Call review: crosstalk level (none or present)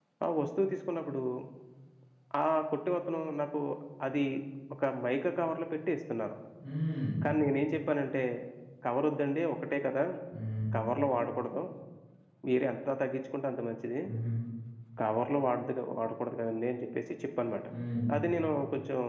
none